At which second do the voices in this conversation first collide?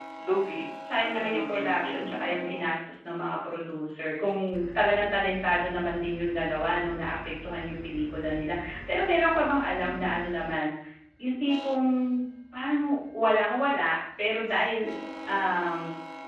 1.0 s

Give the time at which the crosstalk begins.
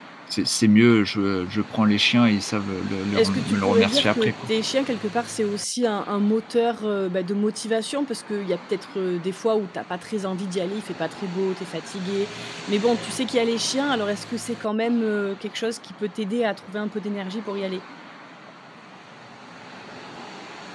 3.1 s

